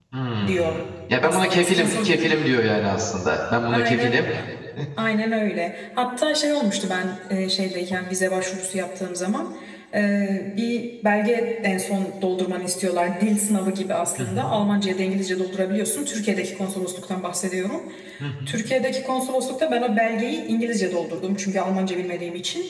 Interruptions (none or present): present